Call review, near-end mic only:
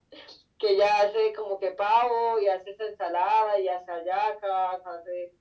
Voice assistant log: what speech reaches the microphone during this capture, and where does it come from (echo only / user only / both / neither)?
echo only